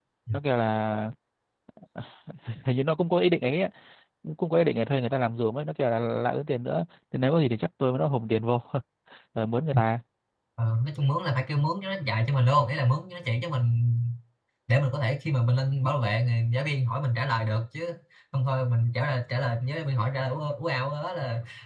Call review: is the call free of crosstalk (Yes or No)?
Yes